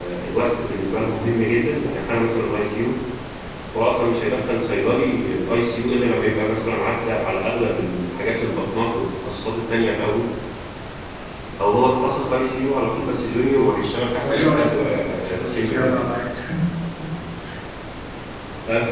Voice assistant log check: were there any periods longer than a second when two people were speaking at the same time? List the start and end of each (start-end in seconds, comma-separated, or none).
14.2-16.1